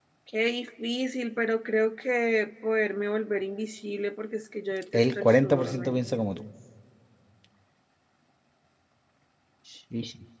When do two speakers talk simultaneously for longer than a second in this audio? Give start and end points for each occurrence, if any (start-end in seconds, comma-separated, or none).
4.9-6.4